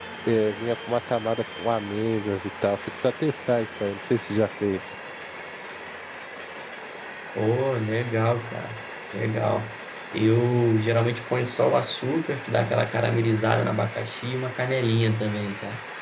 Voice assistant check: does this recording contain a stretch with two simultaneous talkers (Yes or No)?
No